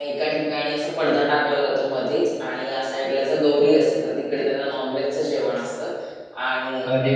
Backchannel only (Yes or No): No